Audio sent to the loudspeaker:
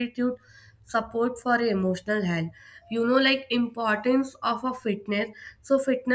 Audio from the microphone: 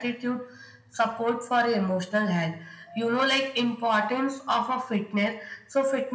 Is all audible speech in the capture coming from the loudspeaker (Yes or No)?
Yes